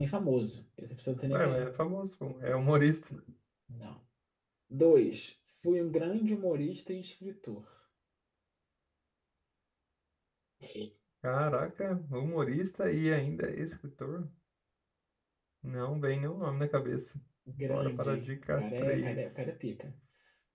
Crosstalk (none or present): present